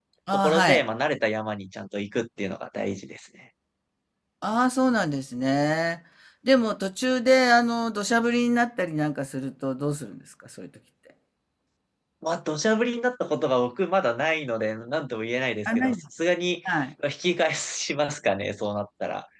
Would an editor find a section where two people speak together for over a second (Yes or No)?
No